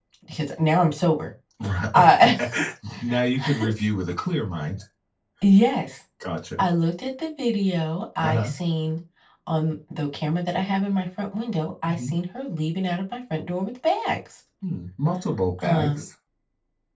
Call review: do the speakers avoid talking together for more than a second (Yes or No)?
Yes